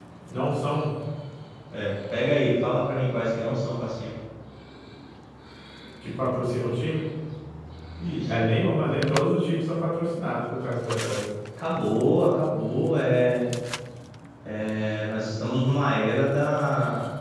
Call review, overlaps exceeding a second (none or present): none